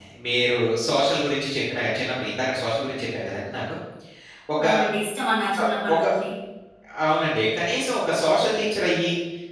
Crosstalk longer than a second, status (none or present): none